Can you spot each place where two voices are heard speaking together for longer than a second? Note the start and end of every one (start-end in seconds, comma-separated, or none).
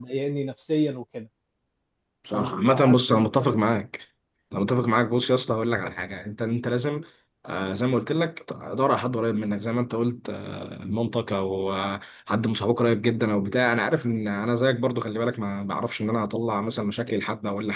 2.3-3.6